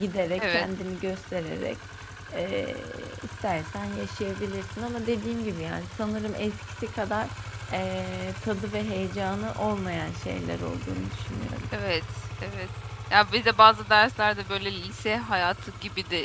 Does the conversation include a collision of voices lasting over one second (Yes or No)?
No